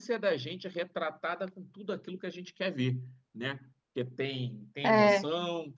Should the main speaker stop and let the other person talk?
No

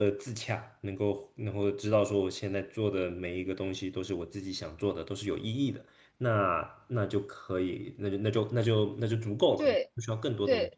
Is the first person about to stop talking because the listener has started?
Yes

